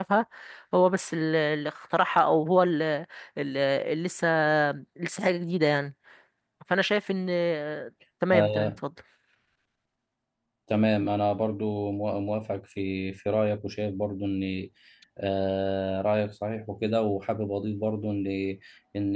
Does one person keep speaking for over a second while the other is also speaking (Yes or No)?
No